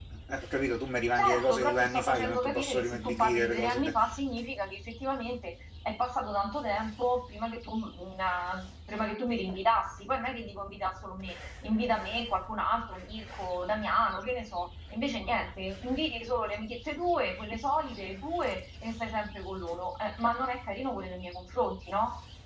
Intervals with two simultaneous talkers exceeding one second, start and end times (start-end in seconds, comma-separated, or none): 1.1-3.8